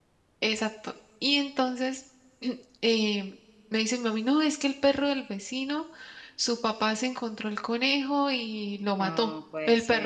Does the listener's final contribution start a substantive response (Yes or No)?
No